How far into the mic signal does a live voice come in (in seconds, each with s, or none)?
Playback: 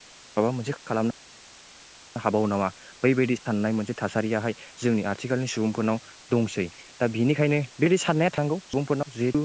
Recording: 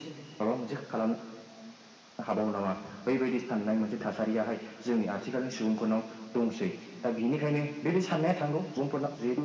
none